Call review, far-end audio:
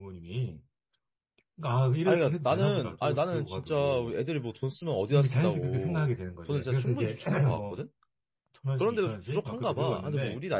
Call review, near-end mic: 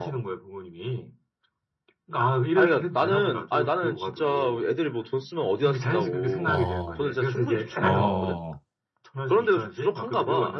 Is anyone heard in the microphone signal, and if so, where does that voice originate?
both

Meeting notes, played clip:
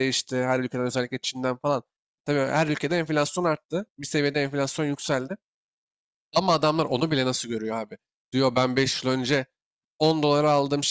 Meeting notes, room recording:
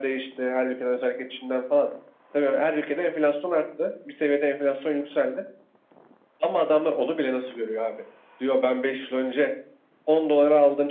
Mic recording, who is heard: echo only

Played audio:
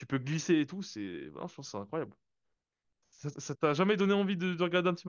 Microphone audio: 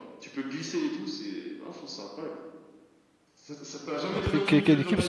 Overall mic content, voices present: both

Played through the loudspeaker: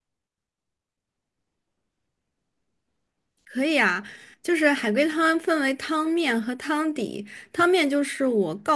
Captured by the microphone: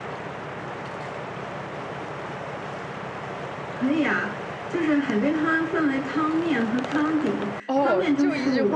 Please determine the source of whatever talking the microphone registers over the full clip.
both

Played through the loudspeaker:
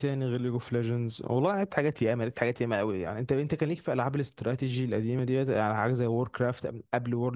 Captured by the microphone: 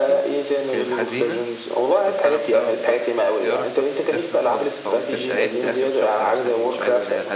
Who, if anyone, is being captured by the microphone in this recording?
both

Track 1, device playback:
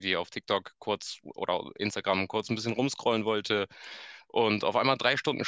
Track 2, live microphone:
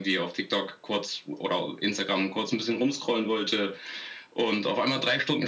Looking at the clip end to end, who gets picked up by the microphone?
echo only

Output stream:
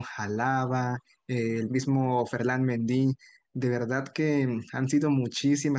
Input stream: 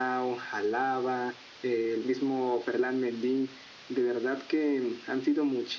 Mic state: echo only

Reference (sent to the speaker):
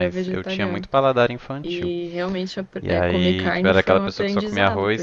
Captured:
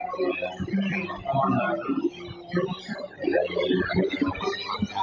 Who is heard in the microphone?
both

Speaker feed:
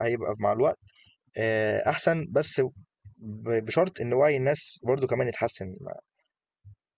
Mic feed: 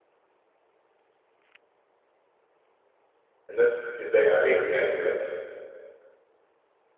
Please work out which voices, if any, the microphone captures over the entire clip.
user only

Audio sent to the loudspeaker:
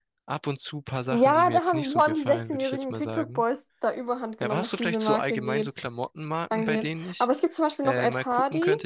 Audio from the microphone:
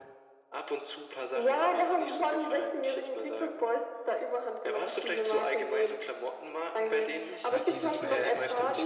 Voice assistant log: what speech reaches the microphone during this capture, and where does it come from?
both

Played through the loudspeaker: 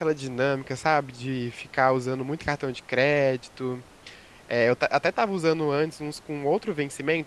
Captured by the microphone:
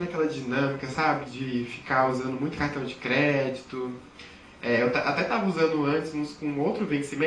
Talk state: echo only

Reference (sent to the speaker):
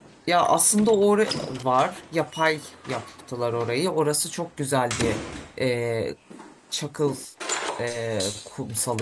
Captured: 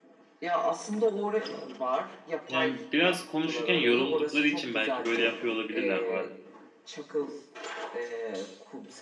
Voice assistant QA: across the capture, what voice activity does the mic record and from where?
both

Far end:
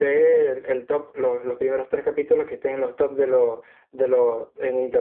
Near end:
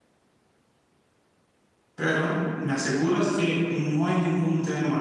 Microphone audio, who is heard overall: user only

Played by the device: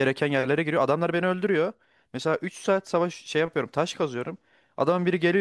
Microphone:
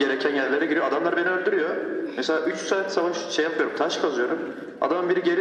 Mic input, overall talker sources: echo only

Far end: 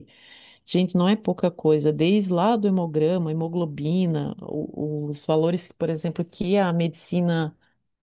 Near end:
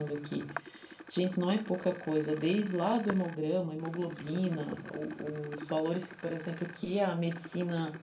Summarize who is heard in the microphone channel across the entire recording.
echo only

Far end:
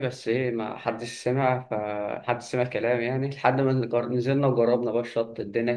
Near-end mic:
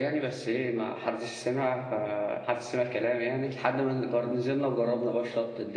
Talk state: echo only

